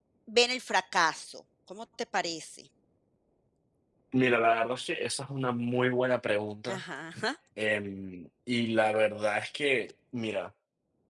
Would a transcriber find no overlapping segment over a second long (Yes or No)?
Yes